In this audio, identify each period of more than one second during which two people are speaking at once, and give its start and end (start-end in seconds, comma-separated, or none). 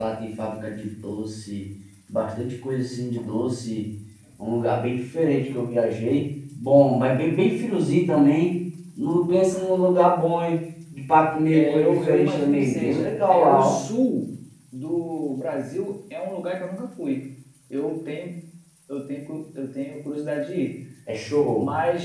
11.5-13.8